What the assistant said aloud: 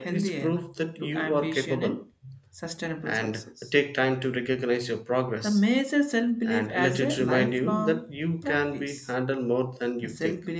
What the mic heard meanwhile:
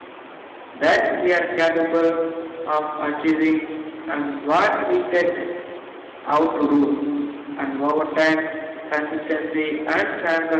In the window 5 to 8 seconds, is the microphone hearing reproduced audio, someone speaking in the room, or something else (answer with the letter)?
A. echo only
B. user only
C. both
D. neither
B